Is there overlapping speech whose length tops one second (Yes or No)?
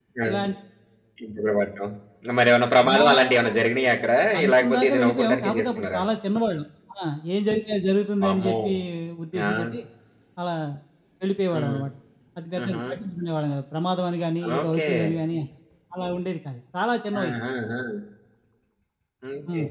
Yes